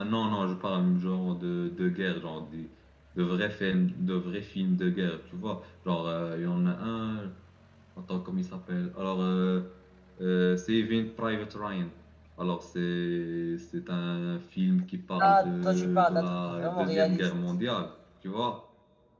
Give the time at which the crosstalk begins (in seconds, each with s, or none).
15.2 s